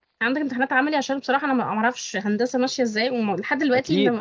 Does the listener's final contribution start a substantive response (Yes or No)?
Yes